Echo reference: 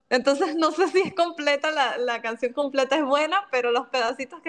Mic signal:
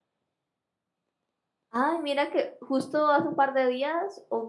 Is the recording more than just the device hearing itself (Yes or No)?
Yes